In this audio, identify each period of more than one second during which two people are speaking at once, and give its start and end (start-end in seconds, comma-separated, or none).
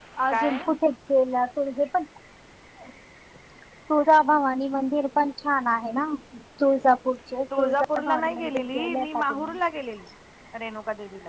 7.6-9.6